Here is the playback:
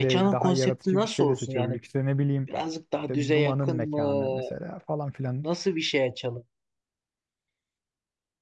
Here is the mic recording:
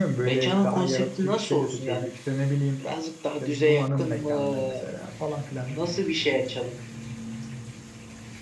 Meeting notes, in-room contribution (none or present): none